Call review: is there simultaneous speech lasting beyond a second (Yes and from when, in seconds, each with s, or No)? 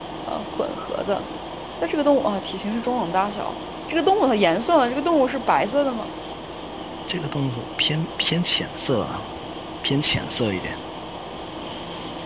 No